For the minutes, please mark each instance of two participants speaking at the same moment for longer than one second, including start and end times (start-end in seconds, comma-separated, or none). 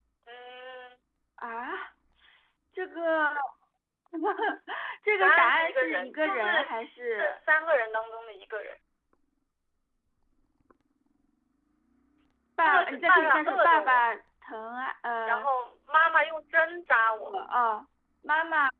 5.2-7.4, 12.6-14.0